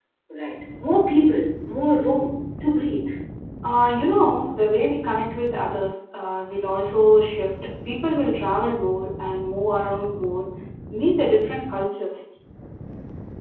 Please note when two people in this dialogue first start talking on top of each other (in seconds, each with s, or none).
none